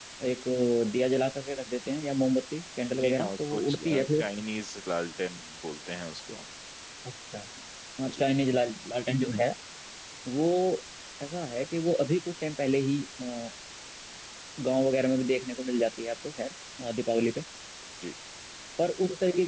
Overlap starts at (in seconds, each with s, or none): 2.9 s